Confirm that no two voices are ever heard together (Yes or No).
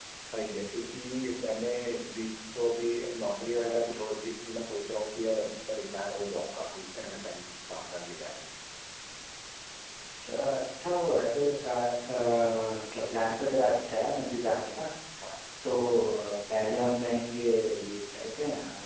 Yes